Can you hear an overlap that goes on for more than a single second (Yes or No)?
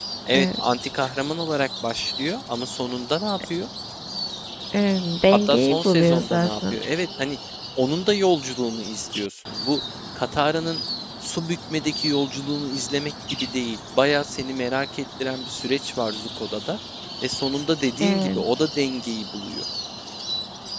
Yes